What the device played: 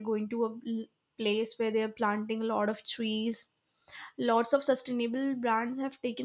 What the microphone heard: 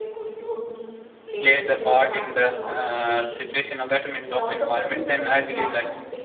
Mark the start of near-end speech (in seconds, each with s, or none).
1.4 s